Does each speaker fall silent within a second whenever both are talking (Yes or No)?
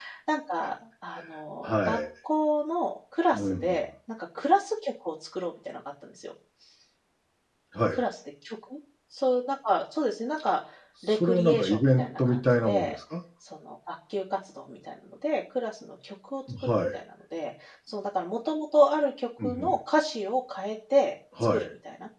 No